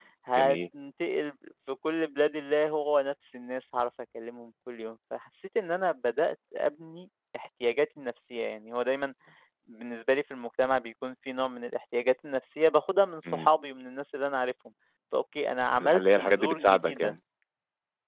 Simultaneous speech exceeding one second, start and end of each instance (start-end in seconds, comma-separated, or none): 15.8-17.1